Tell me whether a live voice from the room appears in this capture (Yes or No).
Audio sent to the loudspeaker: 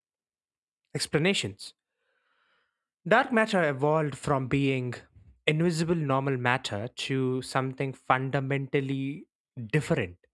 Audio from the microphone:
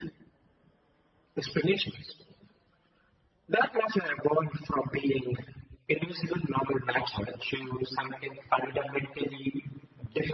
No